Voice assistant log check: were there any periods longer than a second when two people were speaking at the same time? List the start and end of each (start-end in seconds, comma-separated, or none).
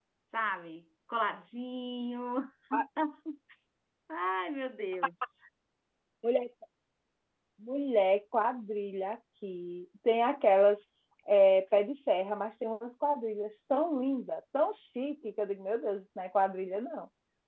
none